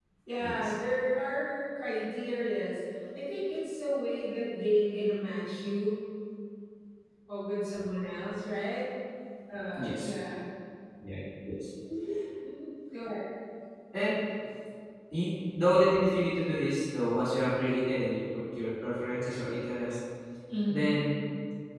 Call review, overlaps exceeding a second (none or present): none